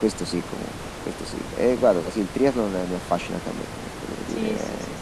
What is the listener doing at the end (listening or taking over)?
taking over